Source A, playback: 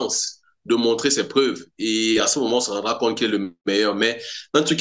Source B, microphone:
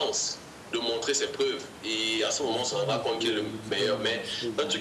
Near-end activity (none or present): present